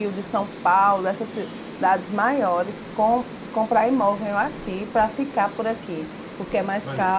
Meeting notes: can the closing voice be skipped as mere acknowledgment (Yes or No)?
Yes